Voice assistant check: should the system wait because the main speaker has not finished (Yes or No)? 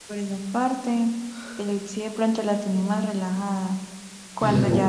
Yes